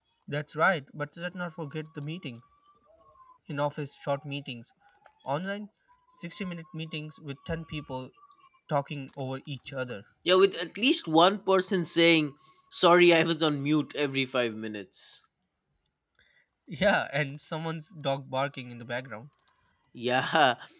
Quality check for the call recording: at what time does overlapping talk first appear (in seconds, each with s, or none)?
none